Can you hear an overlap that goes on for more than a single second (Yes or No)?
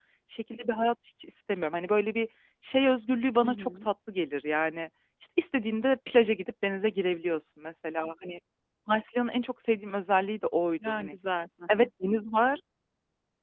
No